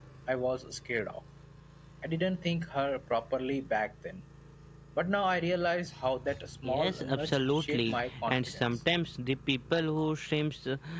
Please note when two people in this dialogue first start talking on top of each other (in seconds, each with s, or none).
6.6 s